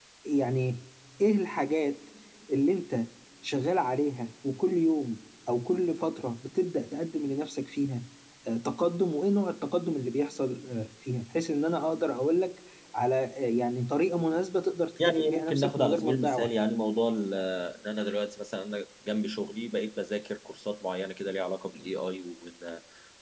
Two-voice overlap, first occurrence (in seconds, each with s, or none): 15.0 s